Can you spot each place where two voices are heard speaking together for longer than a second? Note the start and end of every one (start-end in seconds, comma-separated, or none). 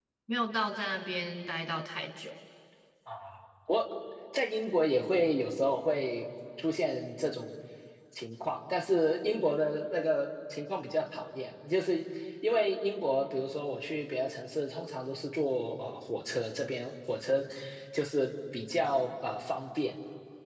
none